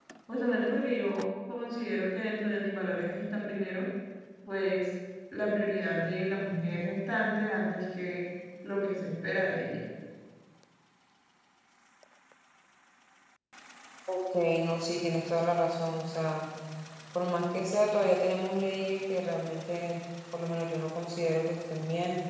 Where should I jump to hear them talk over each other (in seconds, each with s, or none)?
none